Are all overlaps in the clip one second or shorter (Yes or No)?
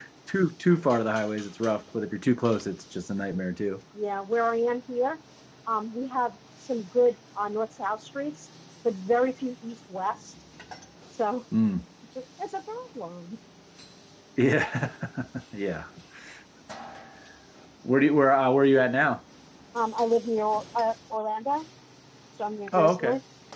Yes